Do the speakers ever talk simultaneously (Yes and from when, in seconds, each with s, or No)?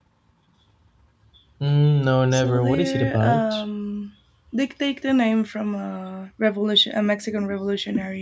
Yes, from 2.3 s